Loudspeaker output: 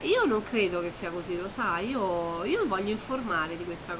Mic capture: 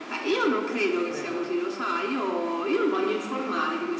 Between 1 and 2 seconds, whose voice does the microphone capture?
both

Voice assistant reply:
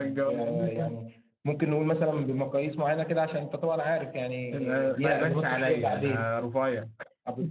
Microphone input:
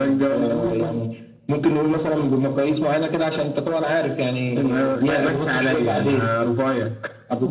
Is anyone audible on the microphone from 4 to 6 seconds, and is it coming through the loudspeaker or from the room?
echo only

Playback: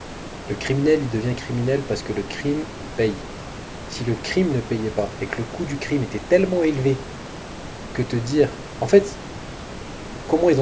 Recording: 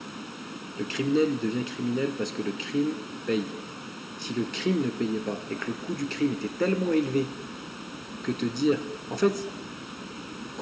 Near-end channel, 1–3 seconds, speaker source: echo only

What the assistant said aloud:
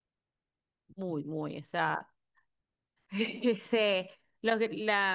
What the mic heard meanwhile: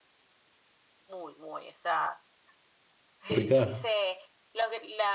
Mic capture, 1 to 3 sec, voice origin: echo only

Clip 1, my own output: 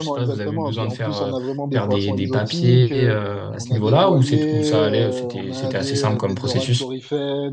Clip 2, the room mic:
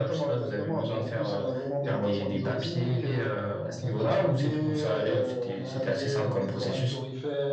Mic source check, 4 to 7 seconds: echo only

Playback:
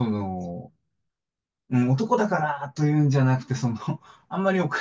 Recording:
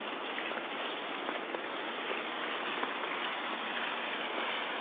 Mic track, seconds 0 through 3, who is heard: neither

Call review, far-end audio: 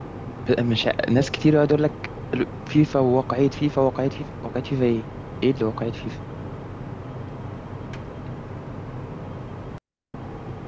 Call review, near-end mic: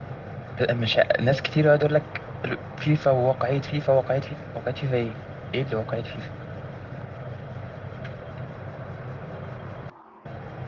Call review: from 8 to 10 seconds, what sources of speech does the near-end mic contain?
neither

